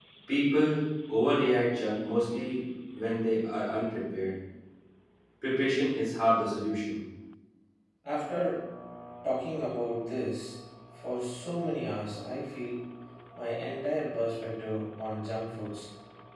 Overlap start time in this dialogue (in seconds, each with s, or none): none